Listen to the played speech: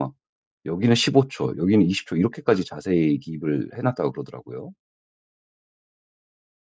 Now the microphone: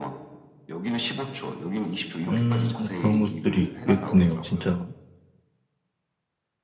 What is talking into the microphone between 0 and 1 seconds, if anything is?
echo only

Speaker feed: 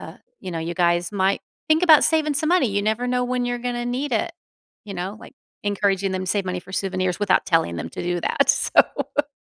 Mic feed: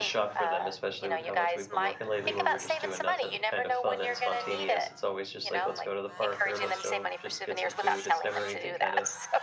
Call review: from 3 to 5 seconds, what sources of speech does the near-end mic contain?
both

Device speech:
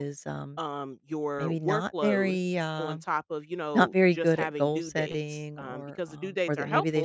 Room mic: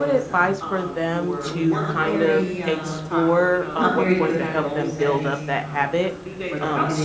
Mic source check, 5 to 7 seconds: both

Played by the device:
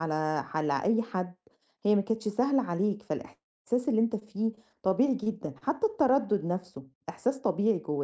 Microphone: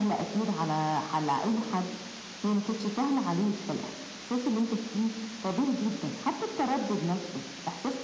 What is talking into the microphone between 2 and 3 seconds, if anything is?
echo only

